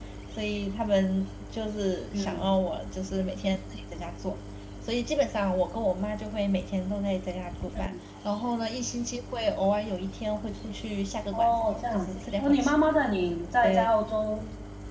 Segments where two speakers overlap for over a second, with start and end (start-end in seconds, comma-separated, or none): 11.3-12.7